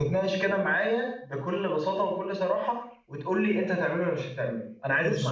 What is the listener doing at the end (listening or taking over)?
taking over